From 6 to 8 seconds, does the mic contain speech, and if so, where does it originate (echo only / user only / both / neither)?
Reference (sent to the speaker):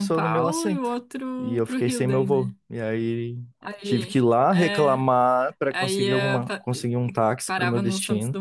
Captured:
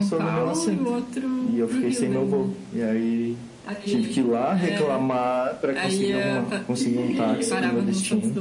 both